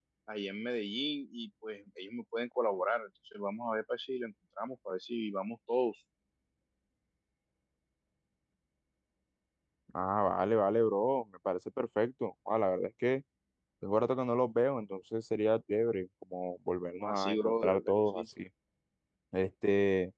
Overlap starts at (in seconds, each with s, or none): 17.0 s